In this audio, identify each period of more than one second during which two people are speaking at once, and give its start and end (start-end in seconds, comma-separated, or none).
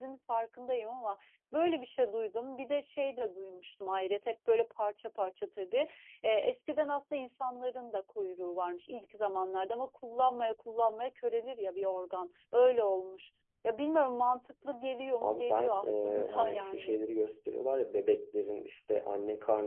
15.2-17.0